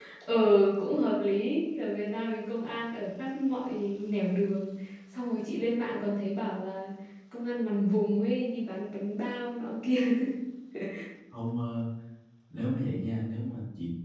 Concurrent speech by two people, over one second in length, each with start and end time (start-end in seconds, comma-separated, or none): none